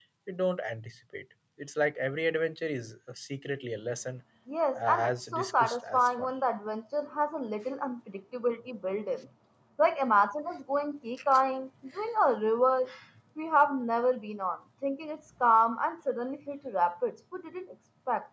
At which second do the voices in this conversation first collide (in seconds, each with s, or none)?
4.8 s